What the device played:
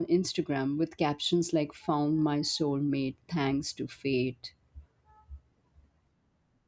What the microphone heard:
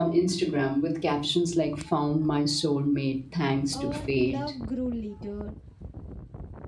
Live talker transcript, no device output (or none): or love grew later,